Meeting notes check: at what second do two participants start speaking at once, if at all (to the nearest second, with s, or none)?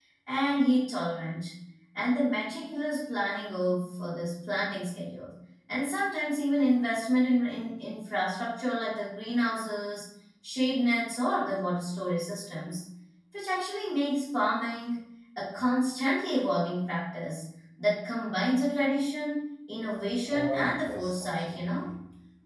20 s